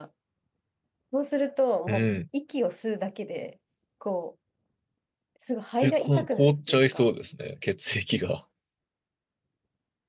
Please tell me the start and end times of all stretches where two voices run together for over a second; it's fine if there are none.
5.8-7.1

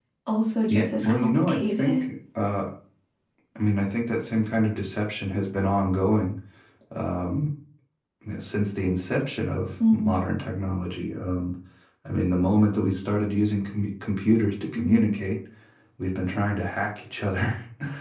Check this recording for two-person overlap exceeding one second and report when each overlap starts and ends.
0.7-2.0

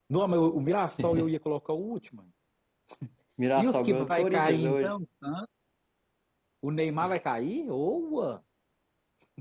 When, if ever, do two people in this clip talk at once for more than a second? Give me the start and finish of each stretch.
3.6-5.0

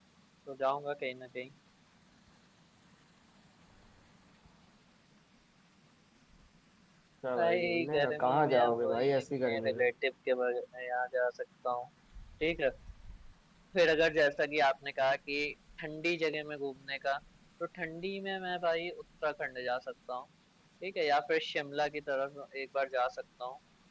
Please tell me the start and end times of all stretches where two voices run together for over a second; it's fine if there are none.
7.4-9.8

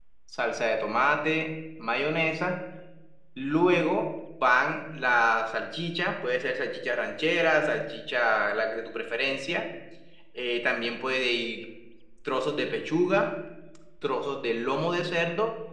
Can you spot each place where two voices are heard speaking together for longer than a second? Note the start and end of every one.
none

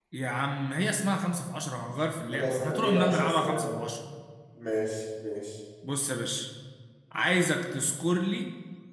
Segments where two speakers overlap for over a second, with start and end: 2.3-3.7

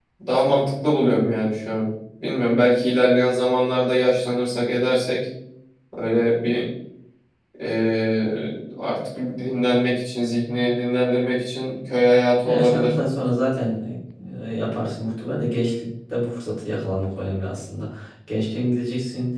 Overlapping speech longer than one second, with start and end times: none

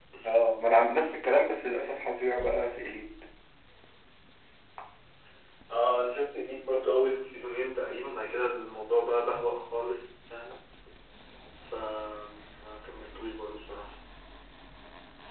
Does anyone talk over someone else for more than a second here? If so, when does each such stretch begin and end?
none

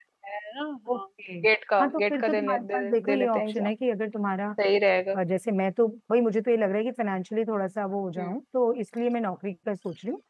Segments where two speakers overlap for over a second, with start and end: 1.8-3.7

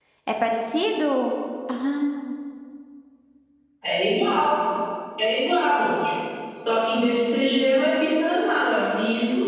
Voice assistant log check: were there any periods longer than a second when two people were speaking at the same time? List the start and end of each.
none

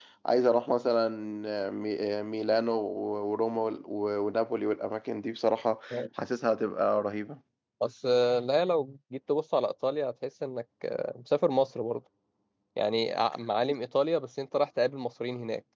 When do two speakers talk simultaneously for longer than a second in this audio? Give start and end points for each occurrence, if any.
none

